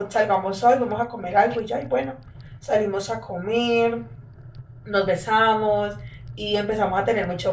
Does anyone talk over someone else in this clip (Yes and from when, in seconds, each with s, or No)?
No